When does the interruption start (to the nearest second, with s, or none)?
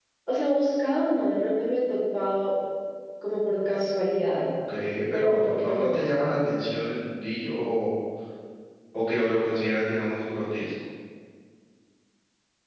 5 s